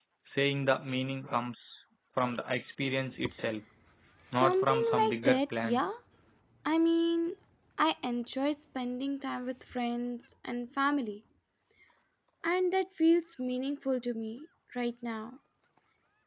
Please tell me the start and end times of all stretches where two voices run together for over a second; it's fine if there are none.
4.3-5.8

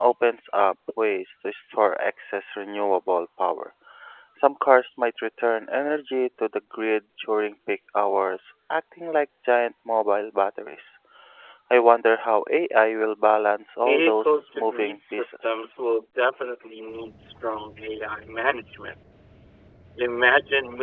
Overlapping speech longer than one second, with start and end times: 13.8-15.6

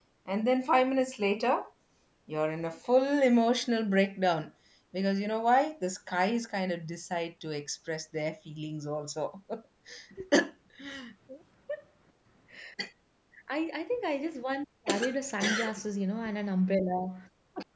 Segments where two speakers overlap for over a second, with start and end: none

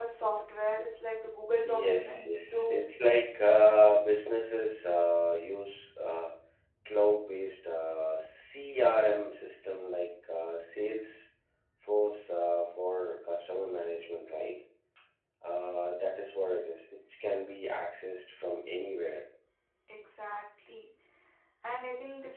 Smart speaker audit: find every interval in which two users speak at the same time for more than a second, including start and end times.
1.6-2.9

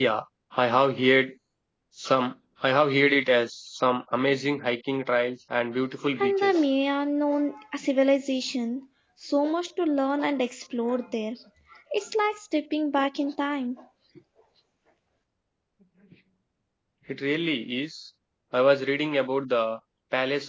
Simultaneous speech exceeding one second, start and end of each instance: none

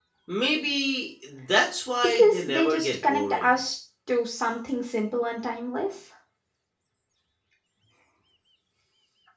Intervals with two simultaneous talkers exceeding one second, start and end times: 2.0-3.5

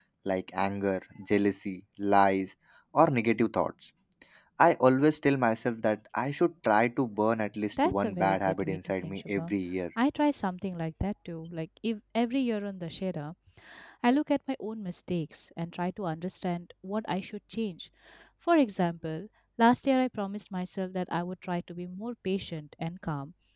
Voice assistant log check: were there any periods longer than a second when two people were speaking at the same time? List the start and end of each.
7.8-9.5

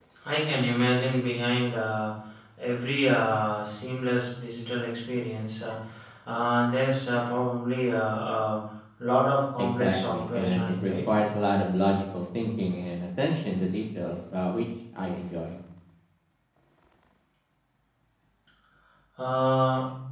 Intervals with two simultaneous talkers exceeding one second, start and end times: 9.6-11.1

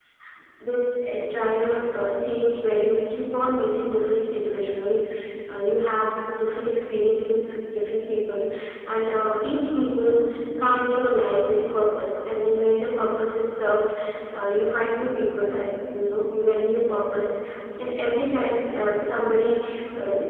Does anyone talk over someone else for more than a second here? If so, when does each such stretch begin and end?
none

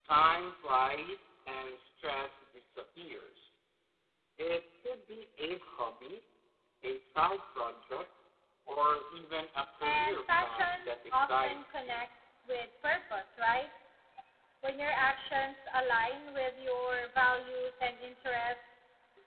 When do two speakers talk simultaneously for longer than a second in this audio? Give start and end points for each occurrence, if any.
9.8-12.0

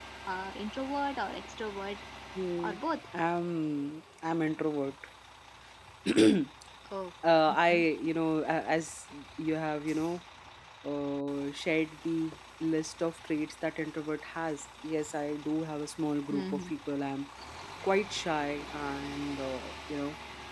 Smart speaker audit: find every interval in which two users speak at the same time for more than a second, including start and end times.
none

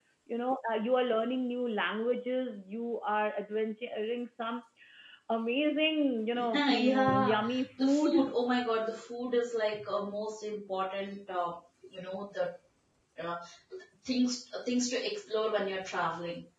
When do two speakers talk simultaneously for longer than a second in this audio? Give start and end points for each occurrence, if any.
6.3-8.2

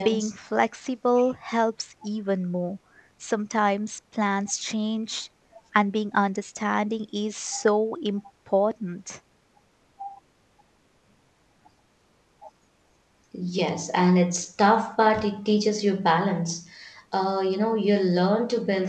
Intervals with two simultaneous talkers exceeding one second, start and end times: none

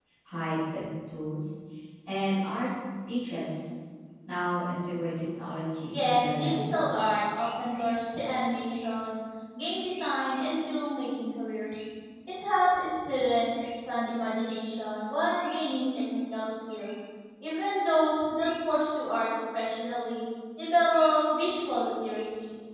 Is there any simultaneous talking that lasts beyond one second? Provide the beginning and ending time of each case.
5.9-7.1

